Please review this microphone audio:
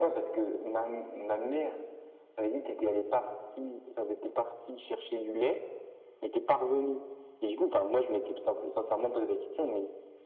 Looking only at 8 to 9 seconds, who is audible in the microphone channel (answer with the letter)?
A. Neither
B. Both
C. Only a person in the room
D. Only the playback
D